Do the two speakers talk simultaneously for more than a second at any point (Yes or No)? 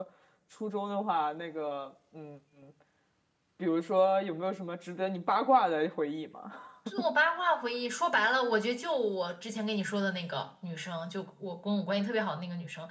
No